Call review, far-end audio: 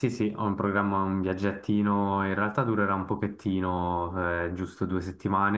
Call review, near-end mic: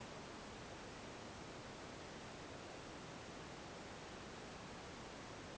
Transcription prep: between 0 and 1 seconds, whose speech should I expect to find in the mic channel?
neither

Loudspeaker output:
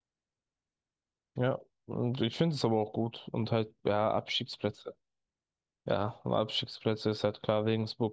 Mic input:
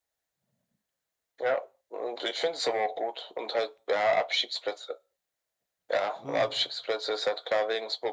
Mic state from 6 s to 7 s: both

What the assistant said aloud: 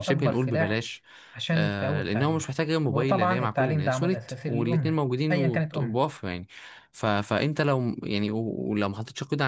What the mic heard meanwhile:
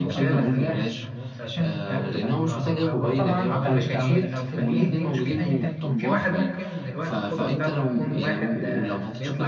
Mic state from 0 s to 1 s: both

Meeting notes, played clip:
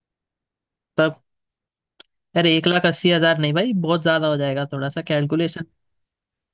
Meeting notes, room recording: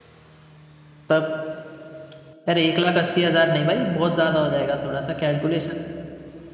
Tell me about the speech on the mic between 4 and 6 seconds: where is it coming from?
echo only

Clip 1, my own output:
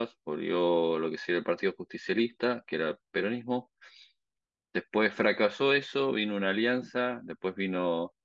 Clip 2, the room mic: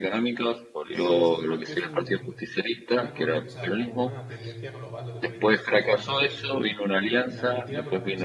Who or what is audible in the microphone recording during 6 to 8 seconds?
both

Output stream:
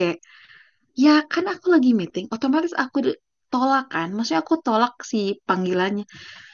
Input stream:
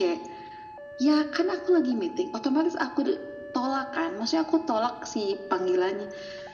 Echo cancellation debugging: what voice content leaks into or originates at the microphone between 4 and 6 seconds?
echo only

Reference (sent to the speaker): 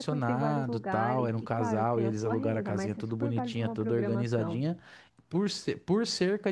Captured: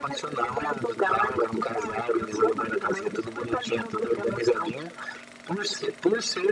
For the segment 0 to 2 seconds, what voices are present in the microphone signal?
echo only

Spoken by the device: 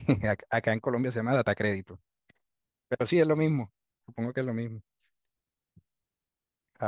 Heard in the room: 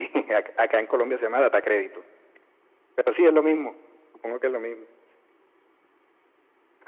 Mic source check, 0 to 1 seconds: echo only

